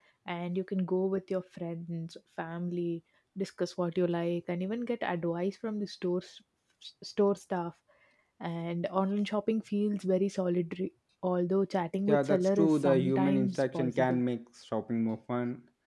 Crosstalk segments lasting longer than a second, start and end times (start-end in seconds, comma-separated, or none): 12.1-14.2